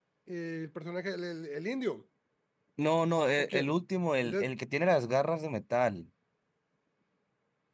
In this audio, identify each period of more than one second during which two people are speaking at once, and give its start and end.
none

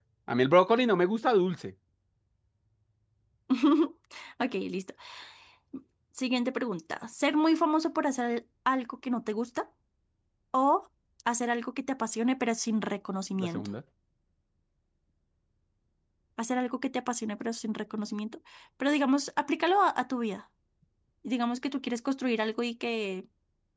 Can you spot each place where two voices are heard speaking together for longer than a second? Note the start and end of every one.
none

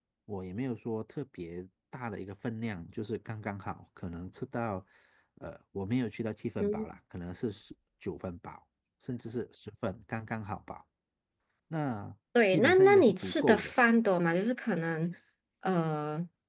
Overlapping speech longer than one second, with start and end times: 12.5-13.8

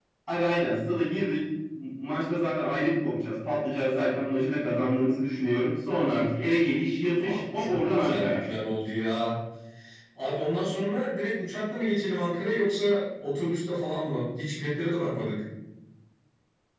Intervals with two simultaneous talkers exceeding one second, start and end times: 7.2-8.4

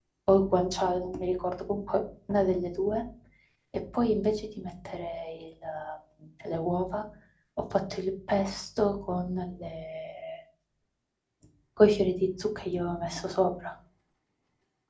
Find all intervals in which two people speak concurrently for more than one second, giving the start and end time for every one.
none

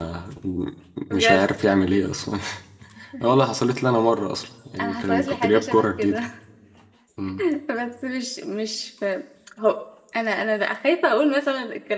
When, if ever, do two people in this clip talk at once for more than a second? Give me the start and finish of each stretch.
4.8-6.2

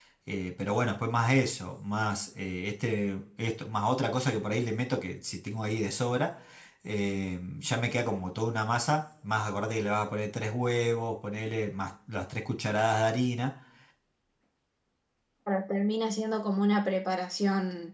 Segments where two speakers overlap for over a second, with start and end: none

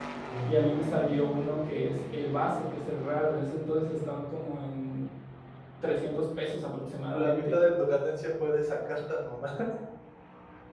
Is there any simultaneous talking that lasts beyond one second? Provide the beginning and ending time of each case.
none

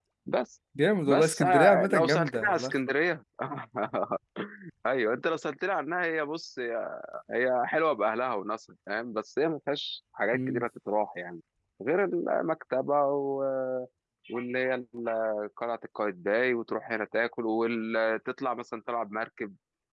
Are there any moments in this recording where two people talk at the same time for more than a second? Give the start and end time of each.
1.1-2.5

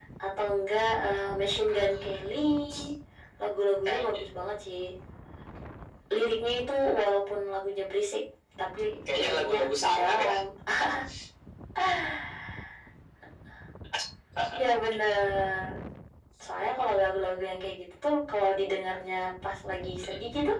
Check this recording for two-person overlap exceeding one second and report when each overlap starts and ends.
9.1-10.3

